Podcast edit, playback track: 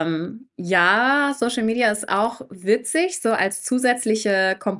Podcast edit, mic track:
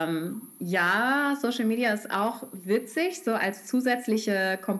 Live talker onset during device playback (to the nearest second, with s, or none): none